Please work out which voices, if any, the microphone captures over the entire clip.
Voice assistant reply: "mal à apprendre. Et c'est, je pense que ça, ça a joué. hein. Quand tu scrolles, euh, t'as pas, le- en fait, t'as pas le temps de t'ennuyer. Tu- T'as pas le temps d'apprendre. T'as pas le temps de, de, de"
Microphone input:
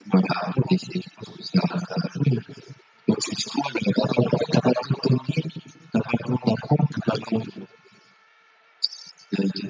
echo only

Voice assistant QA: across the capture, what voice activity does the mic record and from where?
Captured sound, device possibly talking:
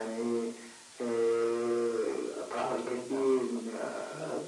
both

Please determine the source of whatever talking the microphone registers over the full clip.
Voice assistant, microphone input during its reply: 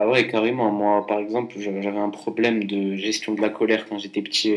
echo only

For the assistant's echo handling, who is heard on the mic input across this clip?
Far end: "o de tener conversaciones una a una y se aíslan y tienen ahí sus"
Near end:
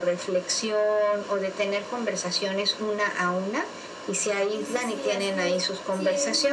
both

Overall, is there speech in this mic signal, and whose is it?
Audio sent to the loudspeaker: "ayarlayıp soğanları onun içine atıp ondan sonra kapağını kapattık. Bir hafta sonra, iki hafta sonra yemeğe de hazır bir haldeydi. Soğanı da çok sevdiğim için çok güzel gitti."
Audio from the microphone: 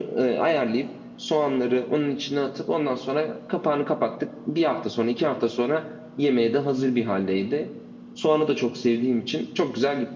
echo only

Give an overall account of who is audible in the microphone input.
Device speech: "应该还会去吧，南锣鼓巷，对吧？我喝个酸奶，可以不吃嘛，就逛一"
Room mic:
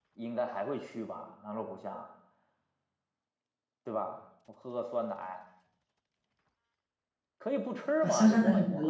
both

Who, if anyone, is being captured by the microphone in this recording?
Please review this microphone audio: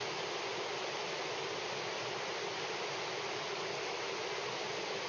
neither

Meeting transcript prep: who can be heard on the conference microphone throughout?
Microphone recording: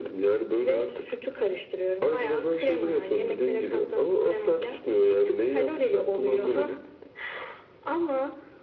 echo only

